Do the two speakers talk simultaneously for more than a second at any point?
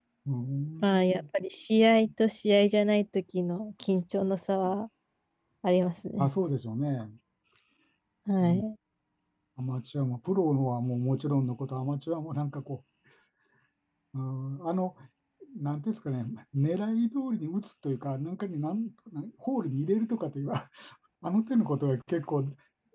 No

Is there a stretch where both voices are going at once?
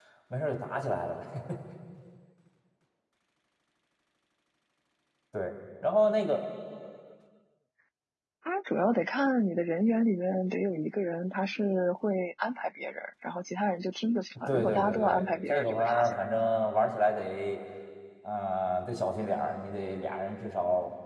Yes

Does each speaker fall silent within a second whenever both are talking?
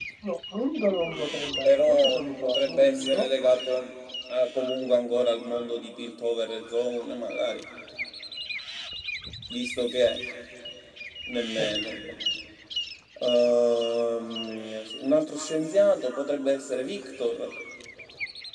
No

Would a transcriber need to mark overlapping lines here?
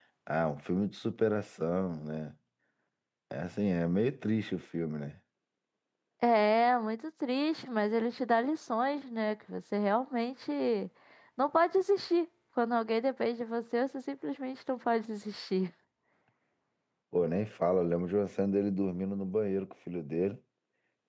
No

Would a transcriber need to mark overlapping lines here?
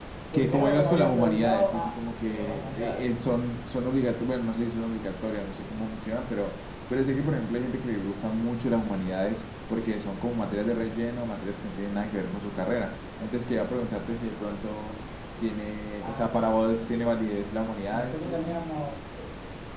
Yes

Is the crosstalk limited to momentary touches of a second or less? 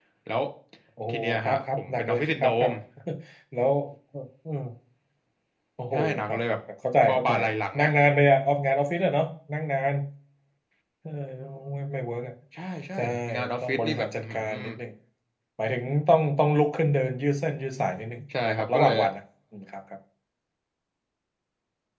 No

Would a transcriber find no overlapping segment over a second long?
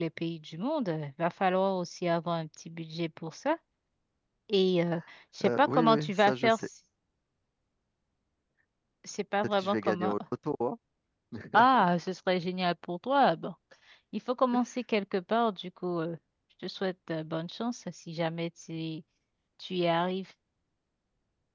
No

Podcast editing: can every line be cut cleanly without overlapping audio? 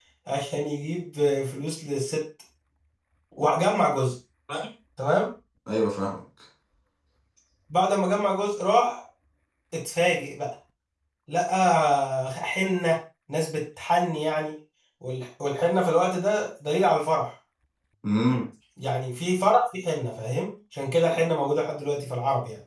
Yes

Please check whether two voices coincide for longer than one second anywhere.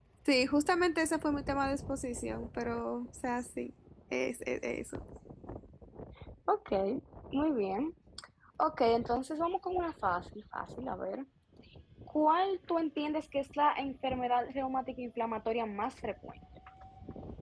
No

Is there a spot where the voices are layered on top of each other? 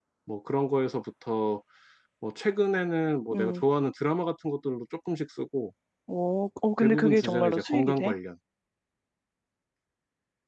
Yes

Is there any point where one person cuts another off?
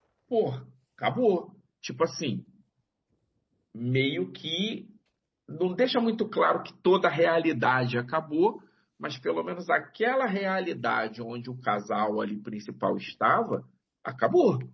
No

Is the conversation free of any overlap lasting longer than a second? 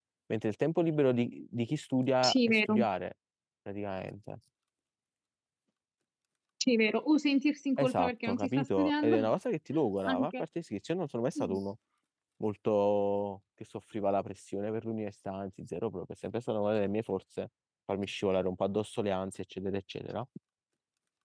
No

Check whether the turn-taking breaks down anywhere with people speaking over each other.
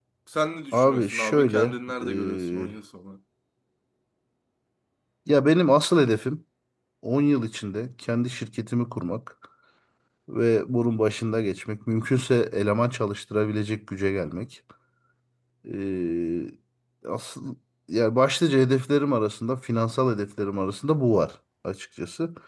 Yes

